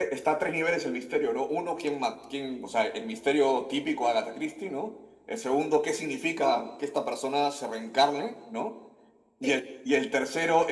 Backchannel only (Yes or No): Yes